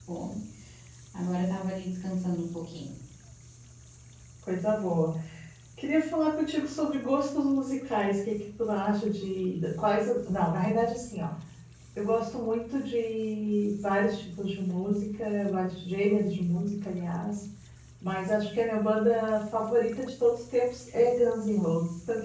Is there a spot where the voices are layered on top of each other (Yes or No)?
No